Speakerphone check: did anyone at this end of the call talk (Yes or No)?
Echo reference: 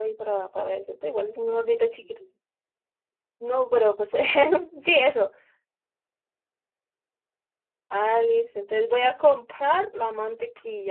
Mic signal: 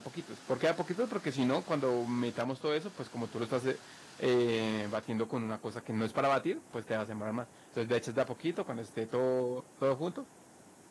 Yes